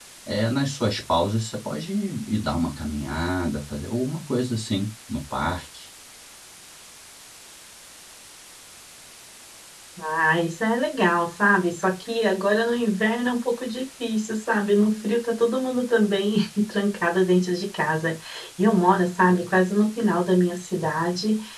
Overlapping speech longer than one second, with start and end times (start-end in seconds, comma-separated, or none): none